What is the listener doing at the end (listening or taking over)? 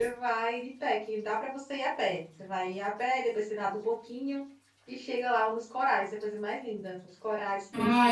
taking over